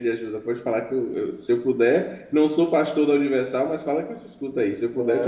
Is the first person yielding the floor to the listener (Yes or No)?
Yes